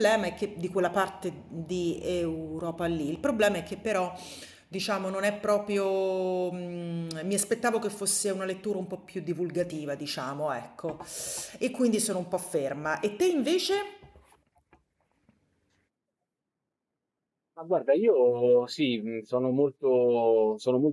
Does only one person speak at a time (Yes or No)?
Yes